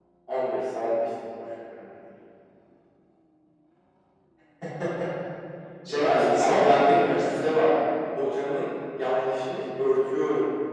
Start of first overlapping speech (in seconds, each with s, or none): 5.9 s